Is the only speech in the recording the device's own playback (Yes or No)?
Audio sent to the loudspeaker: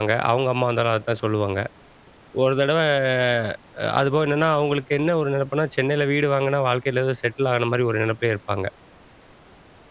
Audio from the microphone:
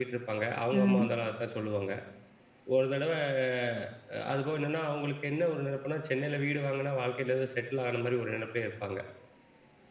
No